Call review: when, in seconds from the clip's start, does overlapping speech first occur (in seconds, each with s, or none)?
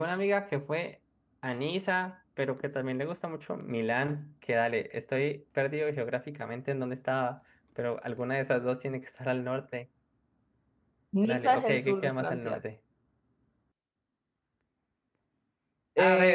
11.2 s